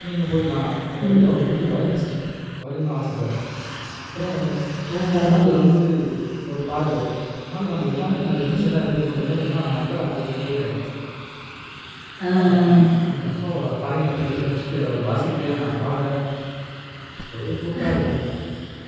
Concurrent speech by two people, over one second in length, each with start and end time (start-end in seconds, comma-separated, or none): none